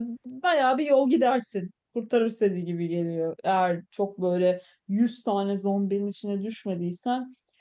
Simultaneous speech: No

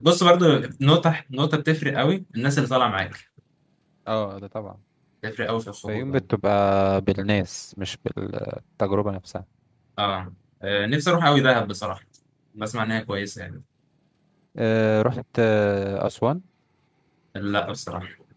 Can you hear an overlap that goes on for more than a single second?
No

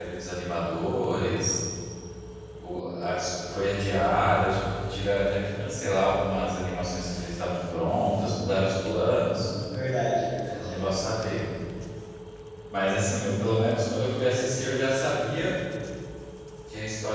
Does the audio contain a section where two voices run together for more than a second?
No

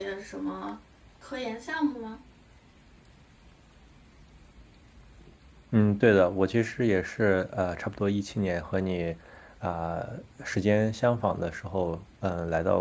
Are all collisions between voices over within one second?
Yes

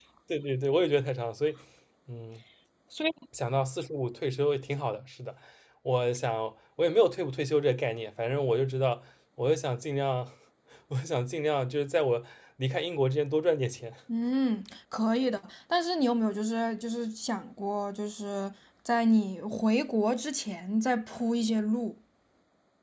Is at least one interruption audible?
No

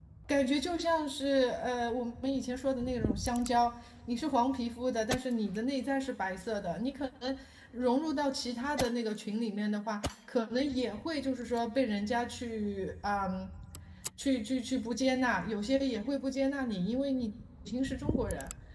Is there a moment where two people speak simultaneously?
No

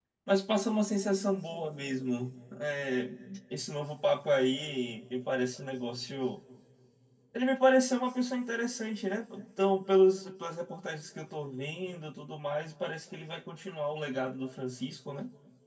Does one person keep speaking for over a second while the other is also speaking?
No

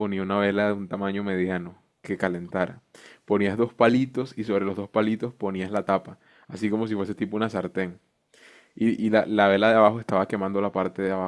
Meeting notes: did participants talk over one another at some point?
No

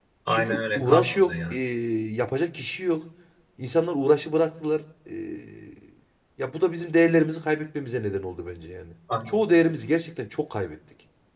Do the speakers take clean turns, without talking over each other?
No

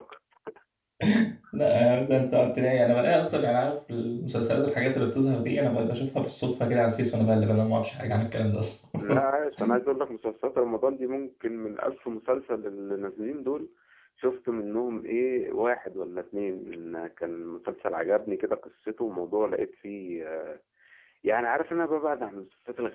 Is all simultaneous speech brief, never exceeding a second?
Yes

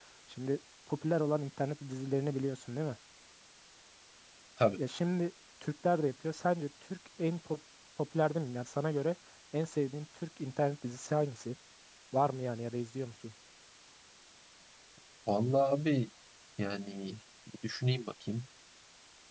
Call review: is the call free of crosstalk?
Yes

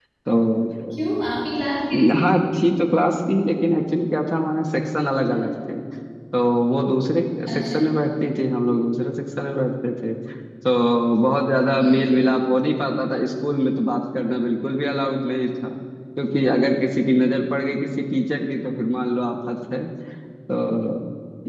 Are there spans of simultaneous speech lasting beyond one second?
No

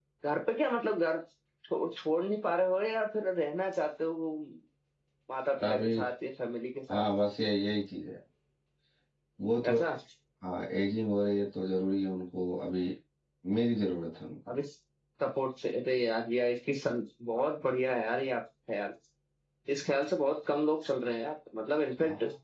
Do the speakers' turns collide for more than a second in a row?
No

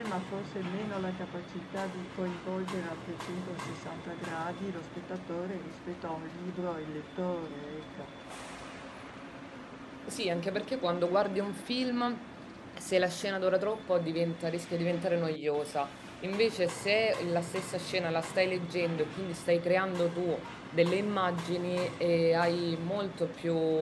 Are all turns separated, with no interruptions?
Yes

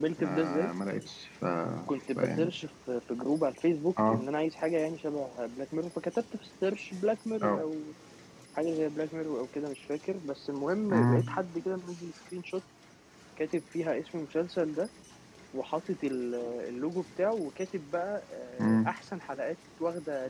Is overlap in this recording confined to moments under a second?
Yes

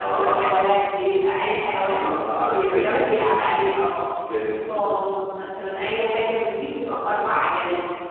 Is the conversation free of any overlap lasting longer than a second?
No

